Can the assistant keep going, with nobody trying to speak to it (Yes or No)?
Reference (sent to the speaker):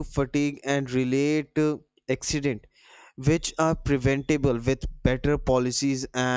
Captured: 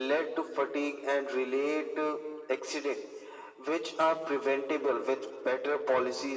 Yes